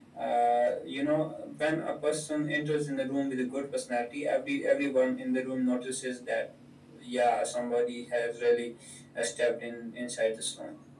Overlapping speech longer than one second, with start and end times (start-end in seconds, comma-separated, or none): none